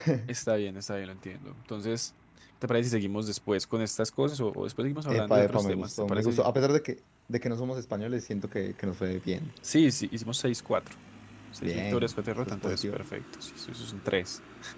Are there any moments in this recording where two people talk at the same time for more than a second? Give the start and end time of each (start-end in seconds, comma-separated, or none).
5.1-6.5, 11.6-13.0